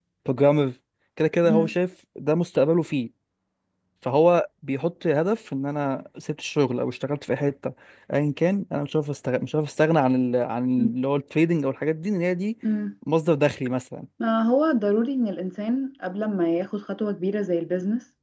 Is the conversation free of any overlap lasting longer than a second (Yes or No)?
Yes